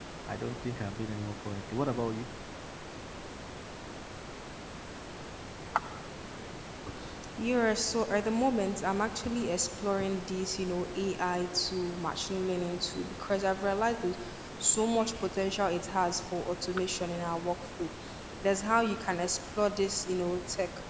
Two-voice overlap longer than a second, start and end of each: none

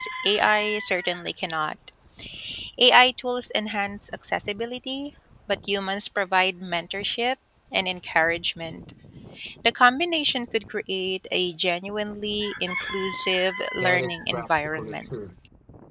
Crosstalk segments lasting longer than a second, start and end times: 13.7-15.1

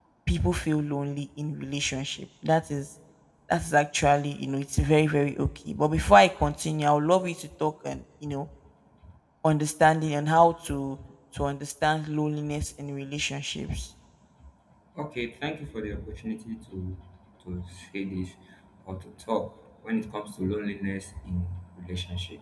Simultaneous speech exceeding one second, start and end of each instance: none

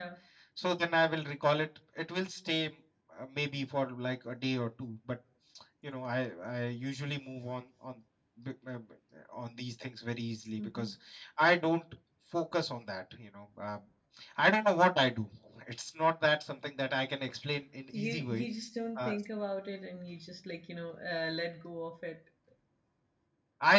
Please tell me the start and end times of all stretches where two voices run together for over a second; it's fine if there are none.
none

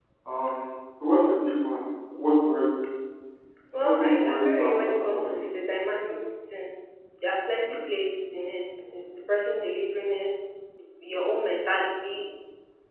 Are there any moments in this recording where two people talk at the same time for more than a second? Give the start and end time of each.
3.8-5.5

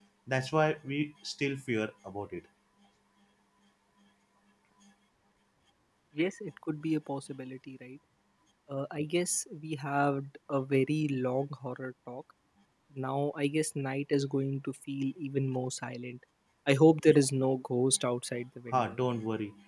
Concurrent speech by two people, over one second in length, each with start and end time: none

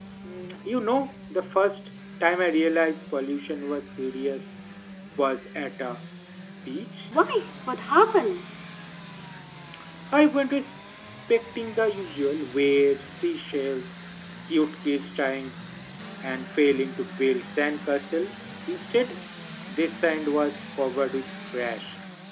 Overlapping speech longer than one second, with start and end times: none

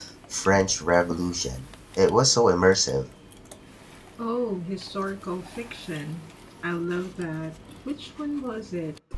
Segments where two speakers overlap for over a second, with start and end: none

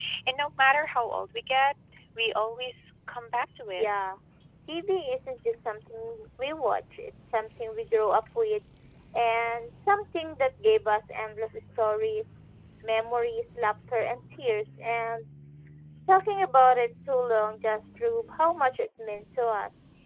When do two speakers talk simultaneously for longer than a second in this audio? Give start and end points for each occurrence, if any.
none

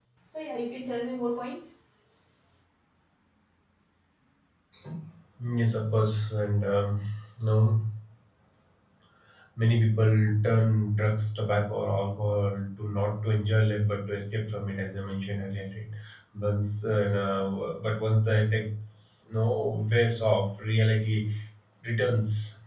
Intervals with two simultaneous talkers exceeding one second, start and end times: none

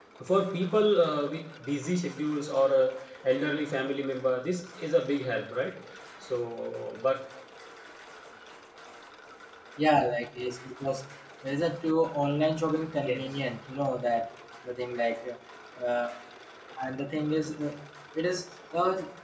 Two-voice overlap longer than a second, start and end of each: none

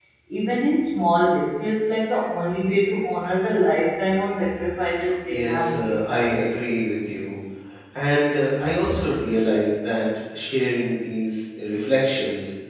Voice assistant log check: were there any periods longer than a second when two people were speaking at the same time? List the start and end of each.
5.3-6.7

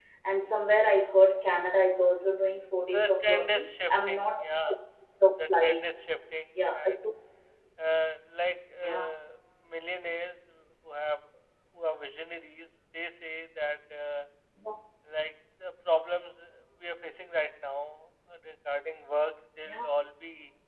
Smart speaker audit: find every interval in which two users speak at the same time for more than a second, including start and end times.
2.9-4.8

